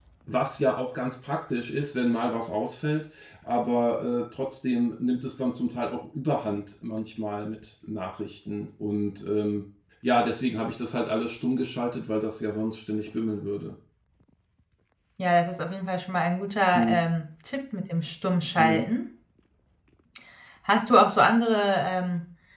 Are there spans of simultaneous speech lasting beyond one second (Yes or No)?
No